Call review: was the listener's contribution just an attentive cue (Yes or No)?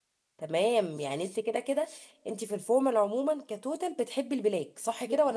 No